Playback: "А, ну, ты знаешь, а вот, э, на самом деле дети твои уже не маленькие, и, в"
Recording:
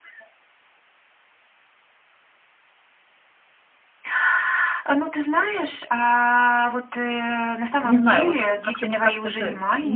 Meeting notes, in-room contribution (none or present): present